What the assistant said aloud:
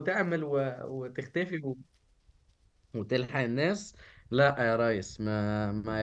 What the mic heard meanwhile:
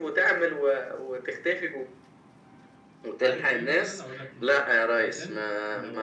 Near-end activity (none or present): present